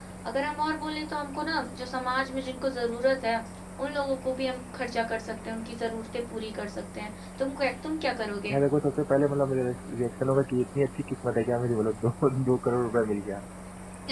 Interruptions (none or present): none